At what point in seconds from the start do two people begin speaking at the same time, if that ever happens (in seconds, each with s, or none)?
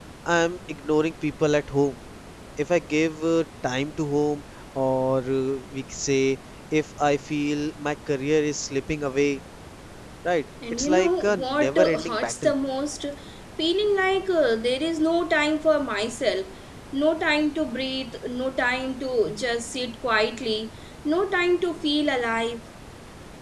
10.7 s